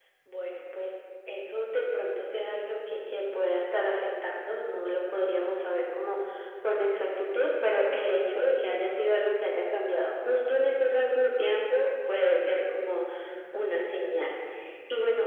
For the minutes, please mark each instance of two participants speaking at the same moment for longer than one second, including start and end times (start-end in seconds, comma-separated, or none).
none